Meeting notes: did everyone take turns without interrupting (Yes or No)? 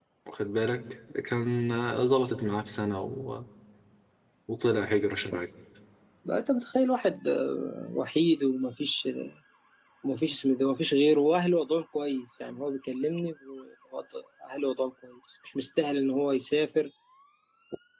Yes